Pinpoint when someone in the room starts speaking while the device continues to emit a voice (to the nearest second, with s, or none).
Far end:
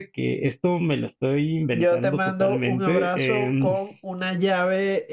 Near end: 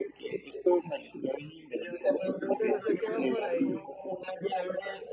3 s